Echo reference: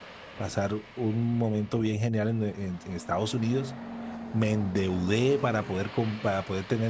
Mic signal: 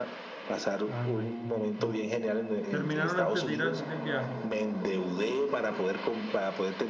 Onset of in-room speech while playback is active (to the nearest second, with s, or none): 1 s